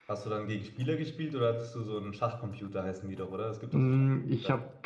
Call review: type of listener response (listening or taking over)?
taking over